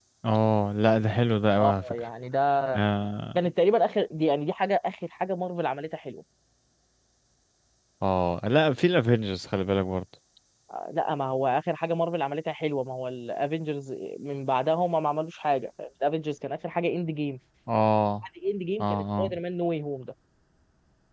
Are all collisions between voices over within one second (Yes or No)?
Yes